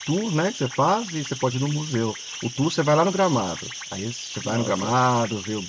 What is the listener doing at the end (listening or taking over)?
listening